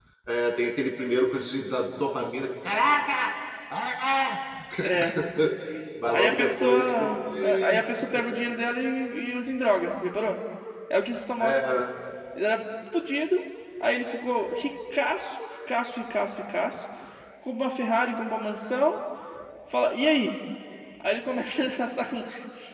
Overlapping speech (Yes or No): Yes